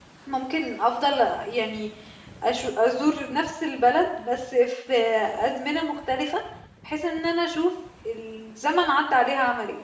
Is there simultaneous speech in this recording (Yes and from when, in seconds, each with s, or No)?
No